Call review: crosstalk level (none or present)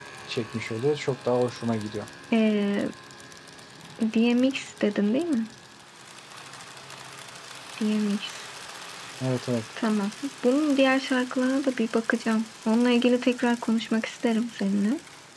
none